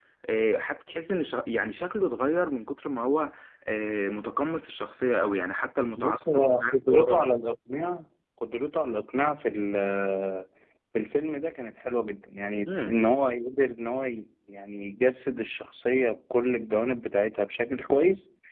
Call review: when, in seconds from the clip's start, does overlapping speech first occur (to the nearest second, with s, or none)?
6 s